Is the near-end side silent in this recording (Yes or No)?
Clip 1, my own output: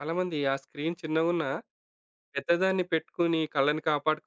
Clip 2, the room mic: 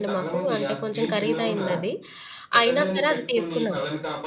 No